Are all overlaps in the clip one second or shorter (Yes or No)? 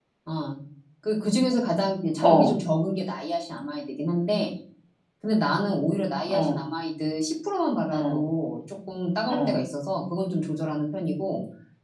Yes